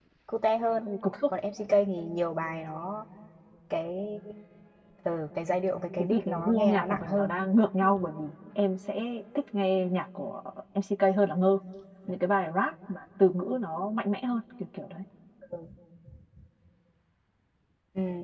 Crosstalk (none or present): present